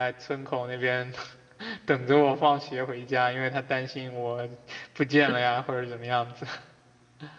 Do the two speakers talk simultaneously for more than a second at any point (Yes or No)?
No